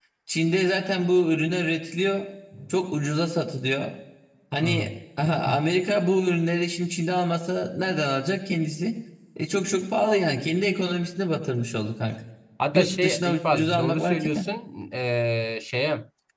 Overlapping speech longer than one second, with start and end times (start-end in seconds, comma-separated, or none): 12.7-14.5